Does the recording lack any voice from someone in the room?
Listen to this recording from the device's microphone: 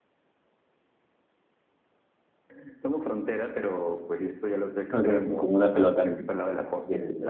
No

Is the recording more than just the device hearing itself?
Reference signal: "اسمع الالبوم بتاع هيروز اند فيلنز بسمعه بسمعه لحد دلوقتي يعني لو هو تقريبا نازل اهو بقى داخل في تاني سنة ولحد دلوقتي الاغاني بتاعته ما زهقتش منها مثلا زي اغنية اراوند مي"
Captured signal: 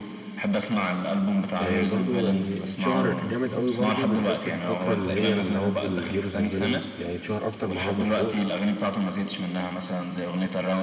Yes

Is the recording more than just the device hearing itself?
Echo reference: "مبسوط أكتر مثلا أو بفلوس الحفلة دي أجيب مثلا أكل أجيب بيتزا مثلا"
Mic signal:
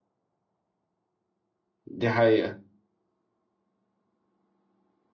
Yes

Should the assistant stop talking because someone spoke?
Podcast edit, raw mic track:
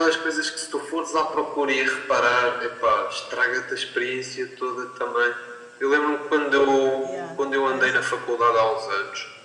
Yes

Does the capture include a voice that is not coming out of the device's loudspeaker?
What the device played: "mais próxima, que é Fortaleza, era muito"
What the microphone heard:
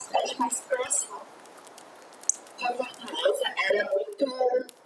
No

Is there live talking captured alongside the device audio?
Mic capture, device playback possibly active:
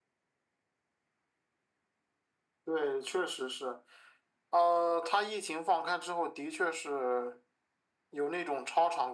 No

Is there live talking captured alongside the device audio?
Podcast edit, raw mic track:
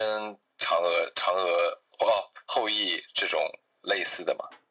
No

